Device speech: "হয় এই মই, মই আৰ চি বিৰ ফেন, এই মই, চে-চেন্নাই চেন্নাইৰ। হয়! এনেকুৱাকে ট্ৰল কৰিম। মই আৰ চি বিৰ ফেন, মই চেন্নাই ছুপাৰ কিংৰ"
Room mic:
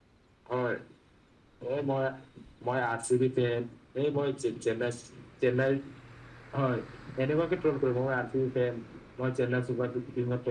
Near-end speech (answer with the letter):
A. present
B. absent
B